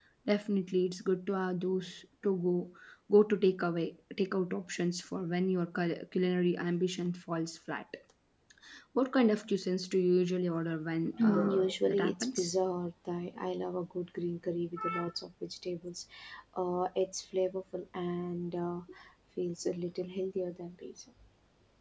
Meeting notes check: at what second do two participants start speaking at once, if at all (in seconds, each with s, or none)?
11.2 s